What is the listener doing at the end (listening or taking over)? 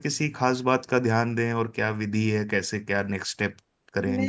taking over